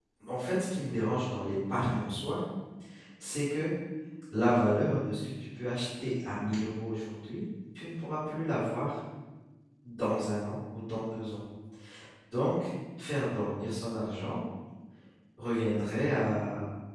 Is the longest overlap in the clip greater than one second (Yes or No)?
No